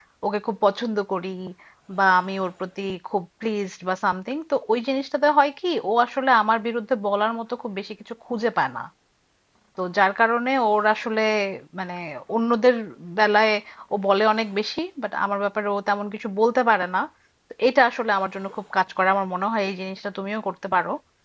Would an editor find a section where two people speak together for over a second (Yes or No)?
No